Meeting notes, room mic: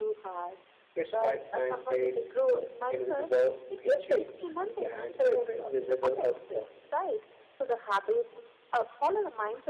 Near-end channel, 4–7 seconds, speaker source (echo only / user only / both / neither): both